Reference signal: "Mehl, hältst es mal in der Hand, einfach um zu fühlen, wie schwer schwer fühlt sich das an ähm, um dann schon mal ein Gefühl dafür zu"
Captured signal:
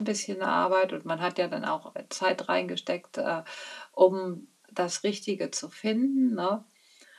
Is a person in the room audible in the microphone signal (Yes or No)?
Yes